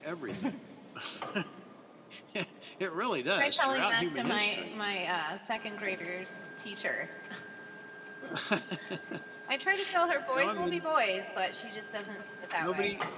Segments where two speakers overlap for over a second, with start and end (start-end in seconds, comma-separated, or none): 3.4-4.8